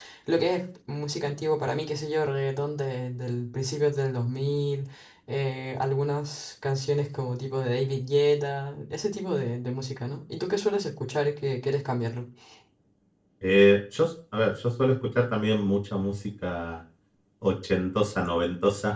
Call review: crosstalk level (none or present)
none